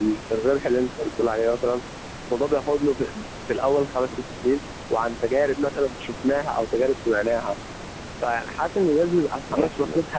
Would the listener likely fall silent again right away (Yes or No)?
No